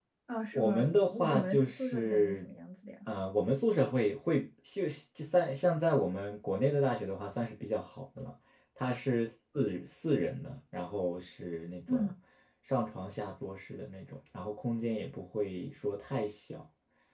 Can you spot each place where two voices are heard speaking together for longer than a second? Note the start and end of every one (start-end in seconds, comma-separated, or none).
0.5-2.5